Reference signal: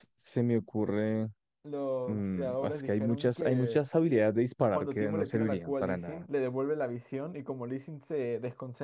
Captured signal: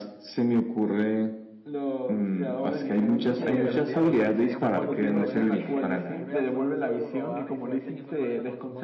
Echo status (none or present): present